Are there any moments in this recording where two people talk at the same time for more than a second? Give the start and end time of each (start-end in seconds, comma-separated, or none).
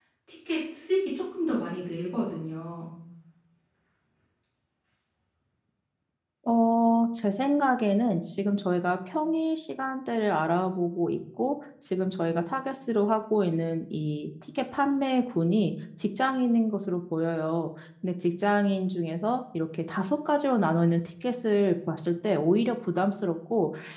none